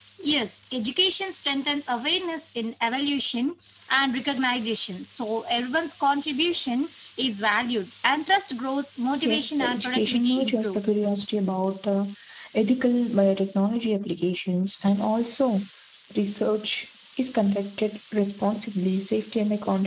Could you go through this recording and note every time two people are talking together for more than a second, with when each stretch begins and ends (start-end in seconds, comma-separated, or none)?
9.2-10.8